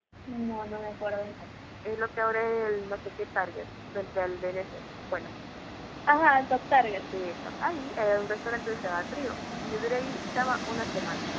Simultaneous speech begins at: none

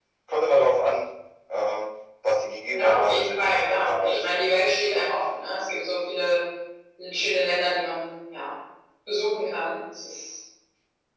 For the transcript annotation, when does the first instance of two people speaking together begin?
3 s

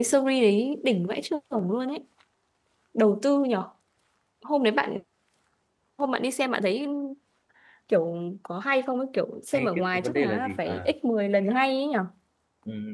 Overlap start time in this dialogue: 10 s

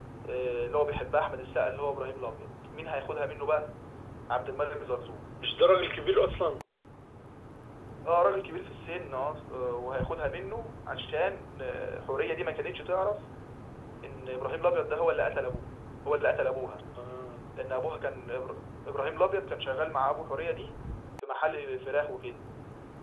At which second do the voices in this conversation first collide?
none

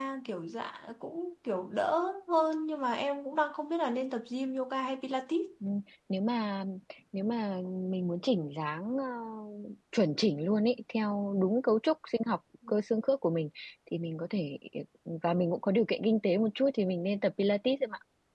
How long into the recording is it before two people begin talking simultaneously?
none

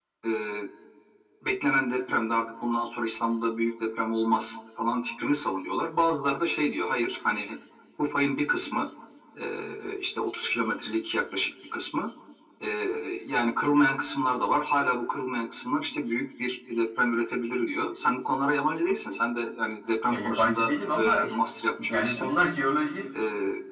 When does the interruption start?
20 s

